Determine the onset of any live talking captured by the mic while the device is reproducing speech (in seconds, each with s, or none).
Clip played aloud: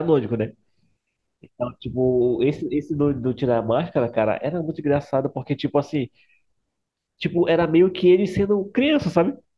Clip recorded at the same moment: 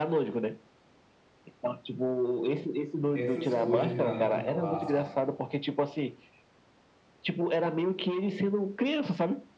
3.1 s